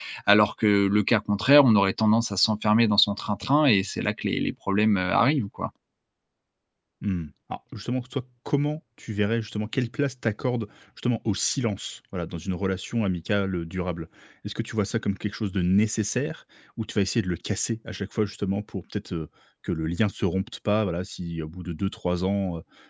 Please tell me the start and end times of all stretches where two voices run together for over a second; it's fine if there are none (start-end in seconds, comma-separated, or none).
none